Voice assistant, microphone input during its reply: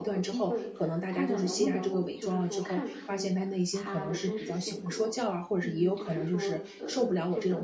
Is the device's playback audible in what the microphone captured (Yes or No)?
Yes